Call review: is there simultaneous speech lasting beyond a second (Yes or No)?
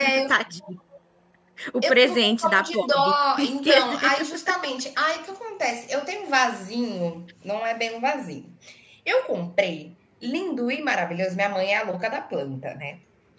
Yes